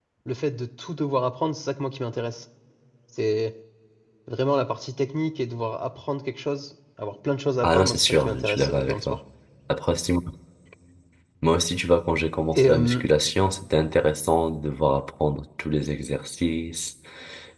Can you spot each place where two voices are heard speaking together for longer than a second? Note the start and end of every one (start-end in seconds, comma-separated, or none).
7.6-9.2